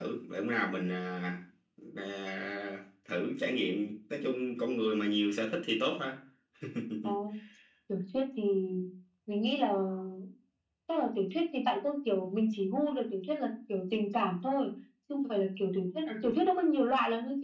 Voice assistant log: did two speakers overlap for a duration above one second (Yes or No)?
No